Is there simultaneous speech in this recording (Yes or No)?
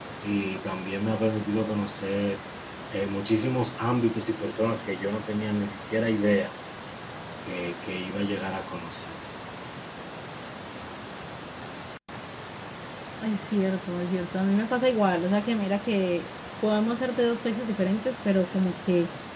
No